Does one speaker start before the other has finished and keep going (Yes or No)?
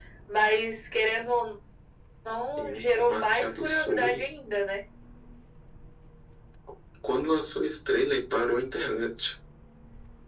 Yes